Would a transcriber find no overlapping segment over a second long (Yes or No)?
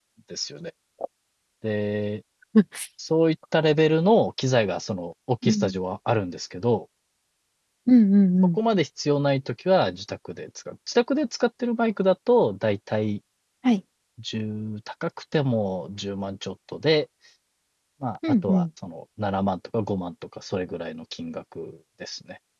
Yes